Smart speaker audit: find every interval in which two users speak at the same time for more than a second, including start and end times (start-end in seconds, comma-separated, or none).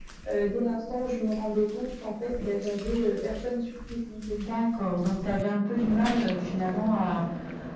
none